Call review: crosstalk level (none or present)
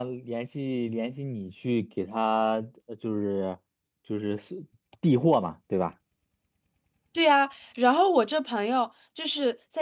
none